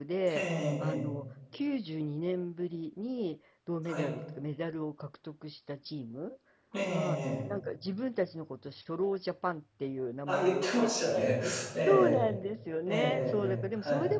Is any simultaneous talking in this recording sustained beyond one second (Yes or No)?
Yes